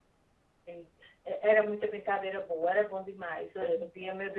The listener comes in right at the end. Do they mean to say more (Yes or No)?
No